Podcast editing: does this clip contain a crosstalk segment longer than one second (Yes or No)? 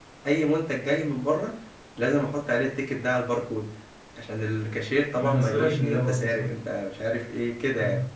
Yes